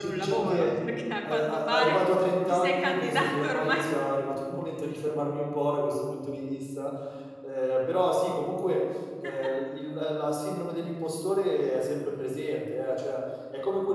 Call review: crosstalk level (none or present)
present